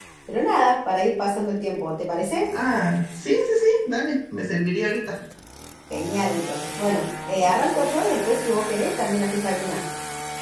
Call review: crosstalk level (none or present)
none